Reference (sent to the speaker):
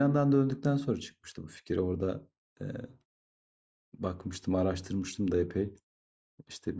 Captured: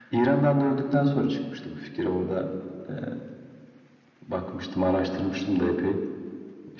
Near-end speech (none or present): none